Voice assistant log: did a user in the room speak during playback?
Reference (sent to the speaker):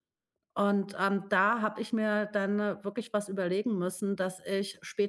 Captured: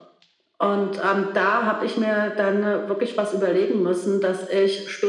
No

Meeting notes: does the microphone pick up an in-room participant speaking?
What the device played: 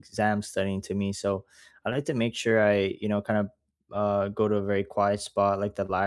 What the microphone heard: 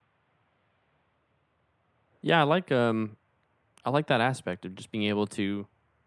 Yes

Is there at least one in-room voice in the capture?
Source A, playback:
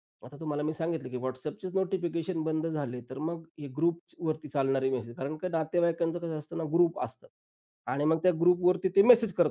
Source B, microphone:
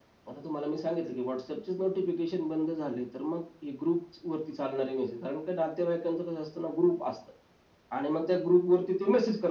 No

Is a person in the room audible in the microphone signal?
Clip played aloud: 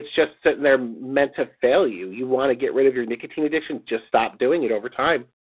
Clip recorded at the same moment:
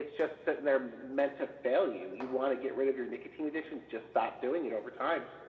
No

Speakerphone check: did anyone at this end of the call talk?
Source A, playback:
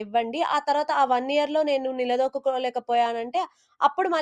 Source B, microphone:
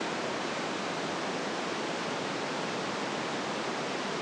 No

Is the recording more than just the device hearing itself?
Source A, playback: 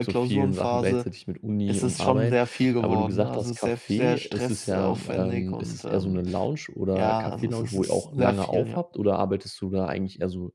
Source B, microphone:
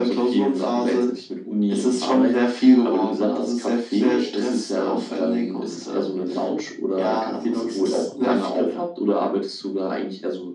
No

